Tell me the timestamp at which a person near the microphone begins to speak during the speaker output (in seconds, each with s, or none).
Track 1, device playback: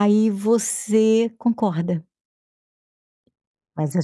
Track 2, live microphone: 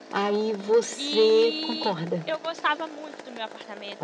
1.0 s